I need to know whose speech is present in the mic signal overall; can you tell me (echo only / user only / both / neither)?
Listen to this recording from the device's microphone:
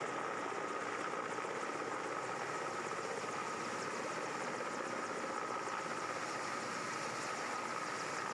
neither